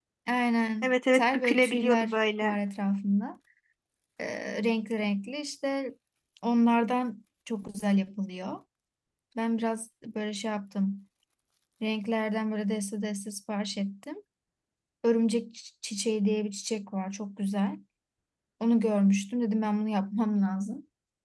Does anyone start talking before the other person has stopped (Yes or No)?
Yes